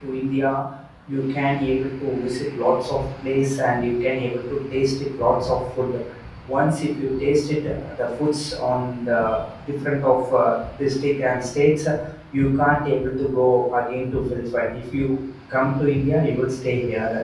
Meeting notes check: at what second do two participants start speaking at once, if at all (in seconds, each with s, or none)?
none